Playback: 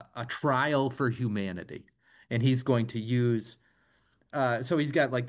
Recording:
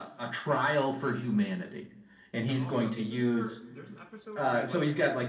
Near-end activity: present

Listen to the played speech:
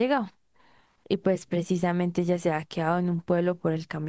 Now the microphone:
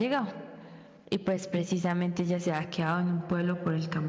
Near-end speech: none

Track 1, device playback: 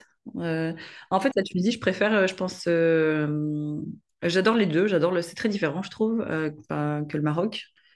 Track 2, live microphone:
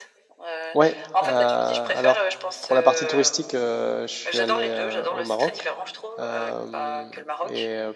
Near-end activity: present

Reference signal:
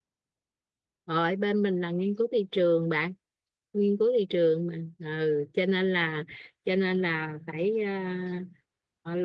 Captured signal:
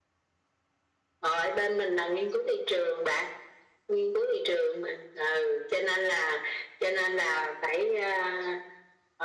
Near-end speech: none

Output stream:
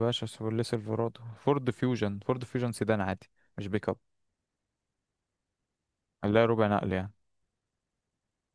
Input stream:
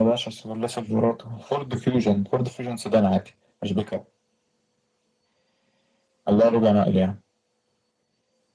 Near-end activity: none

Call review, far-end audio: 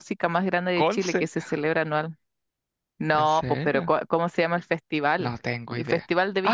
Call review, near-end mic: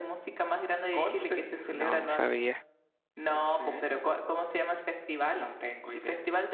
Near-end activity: present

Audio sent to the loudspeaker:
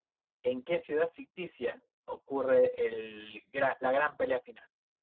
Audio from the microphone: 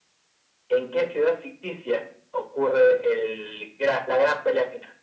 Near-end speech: none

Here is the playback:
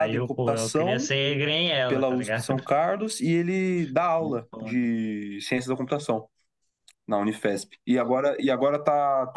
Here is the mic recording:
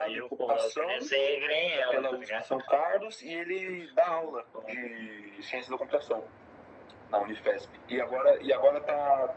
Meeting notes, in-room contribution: none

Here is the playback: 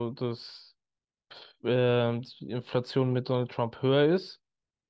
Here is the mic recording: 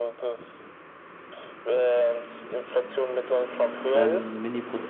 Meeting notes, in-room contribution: present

